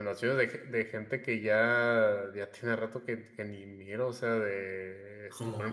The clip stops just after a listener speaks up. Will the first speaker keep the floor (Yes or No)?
Yes